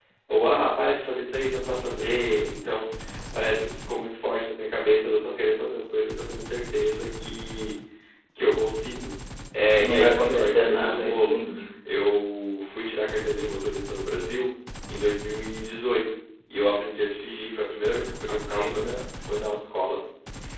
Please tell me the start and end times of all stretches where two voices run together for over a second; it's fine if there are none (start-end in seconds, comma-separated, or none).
9.7-11.4